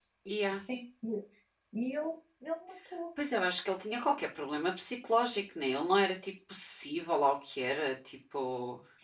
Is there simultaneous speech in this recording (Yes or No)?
No